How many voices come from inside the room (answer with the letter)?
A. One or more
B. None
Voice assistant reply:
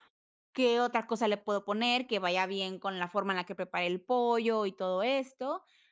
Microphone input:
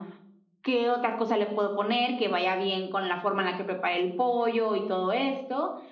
B